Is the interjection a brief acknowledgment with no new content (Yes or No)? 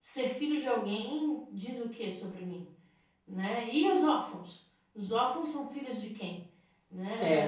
Yes